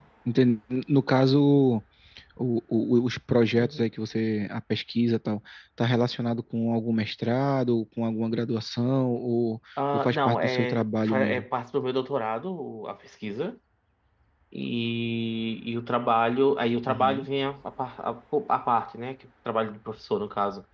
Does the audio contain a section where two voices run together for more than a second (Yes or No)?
Yes